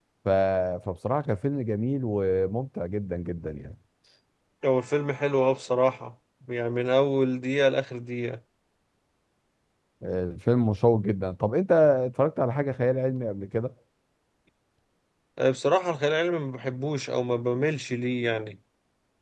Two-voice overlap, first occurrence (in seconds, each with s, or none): none